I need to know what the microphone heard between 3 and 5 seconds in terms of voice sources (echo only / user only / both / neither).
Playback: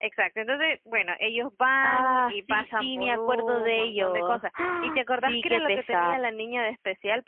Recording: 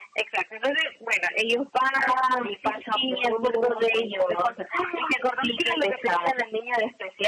echo only